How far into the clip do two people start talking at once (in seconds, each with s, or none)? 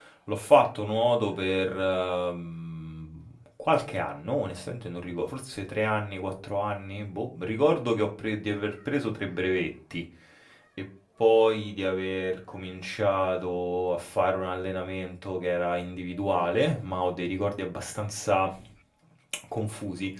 none